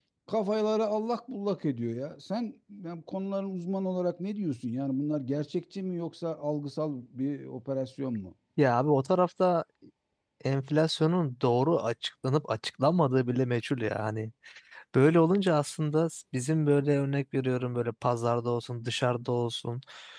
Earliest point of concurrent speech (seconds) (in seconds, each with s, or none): none